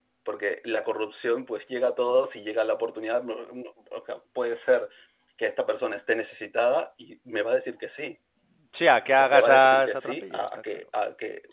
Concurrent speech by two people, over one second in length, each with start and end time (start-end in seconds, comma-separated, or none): 9.1-10.8